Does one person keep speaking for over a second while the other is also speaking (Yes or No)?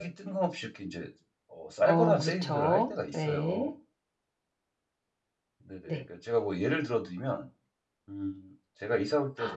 Yes